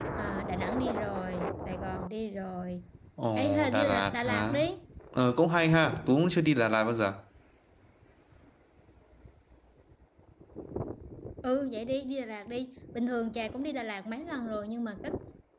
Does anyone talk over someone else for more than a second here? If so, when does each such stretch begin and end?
3.4-4.6

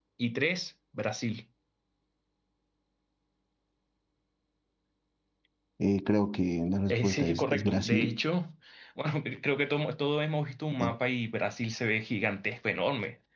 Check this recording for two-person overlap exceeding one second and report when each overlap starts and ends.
6.9-8.2

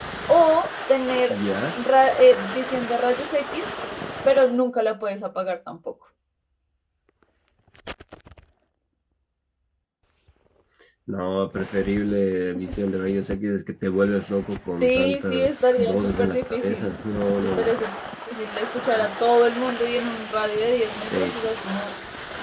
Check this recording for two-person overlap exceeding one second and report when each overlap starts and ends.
14.8-17.0

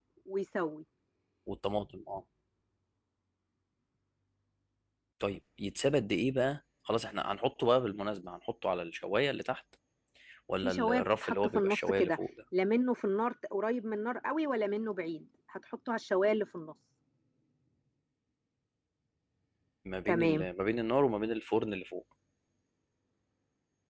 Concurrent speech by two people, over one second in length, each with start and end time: 10.6-12.2

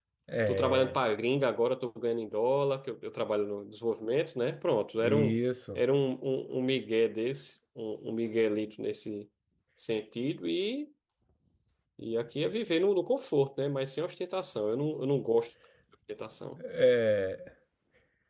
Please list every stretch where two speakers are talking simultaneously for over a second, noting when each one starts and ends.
none

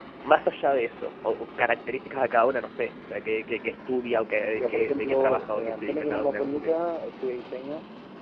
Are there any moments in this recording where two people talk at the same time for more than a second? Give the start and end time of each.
4.5-6.7

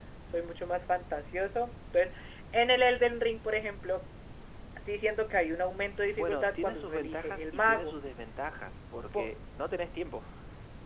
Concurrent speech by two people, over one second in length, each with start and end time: 6.2-7.9

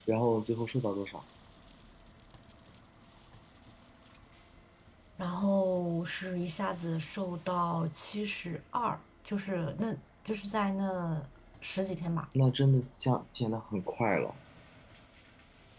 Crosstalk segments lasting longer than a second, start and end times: none

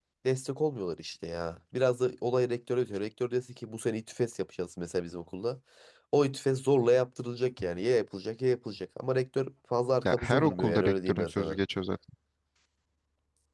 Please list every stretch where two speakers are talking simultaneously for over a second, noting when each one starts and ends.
10.0-11.6

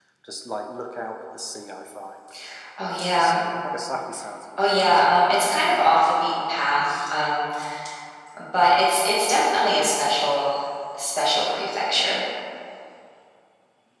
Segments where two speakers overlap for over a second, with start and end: none

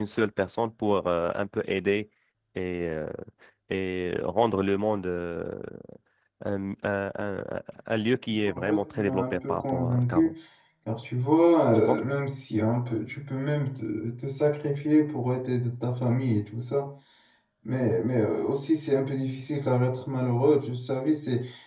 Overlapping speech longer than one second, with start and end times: 8.5-10.3

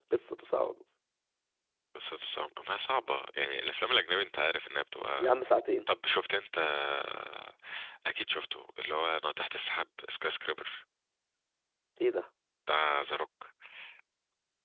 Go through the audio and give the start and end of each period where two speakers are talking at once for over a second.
none

